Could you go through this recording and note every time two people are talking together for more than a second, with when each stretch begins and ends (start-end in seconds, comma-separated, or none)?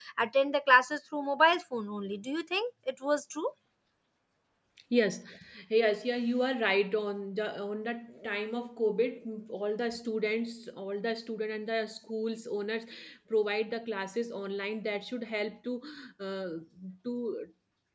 none